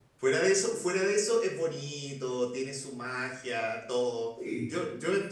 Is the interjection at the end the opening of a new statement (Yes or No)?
No